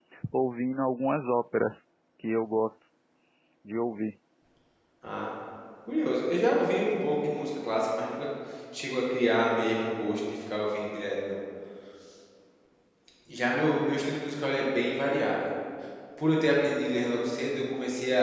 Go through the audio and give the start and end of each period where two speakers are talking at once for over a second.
none

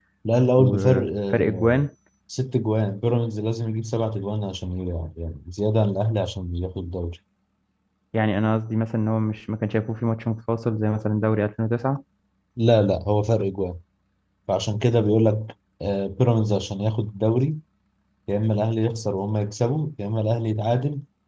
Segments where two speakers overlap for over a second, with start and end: 0.6-1.9

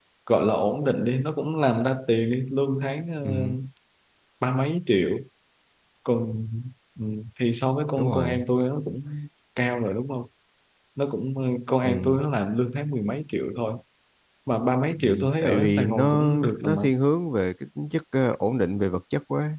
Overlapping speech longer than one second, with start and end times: 14.8-16.8

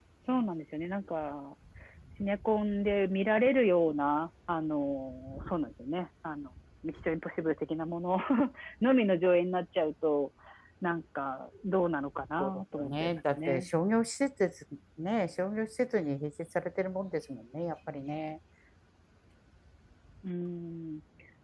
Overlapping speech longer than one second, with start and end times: 12.4-13.7

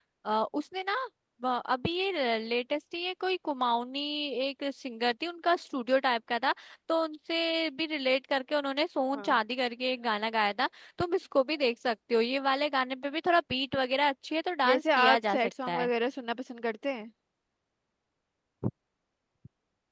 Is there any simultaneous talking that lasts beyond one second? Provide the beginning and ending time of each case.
14.7-15.9

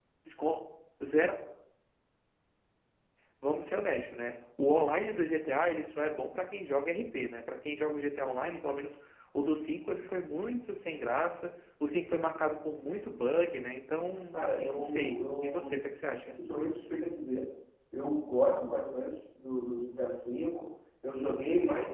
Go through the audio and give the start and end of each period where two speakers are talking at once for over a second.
14.3-15.8

